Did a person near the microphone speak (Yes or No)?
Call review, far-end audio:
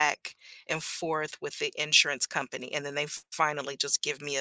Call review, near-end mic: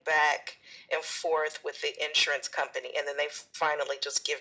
No